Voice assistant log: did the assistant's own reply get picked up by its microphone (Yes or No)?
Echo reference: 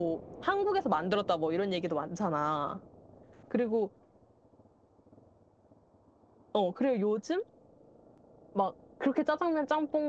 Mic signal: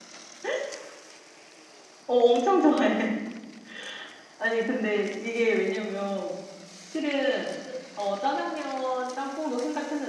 No